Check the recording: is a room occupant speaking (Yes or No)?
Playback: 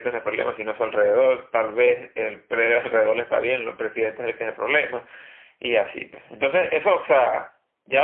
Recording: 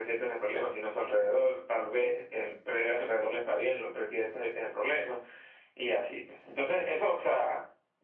No